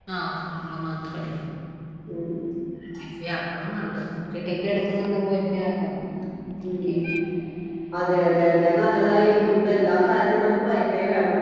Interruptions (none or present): none